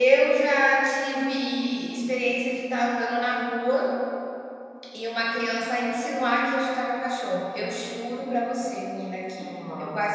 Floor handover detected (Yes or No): No